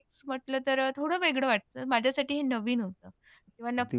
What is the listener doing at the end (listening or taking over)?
listening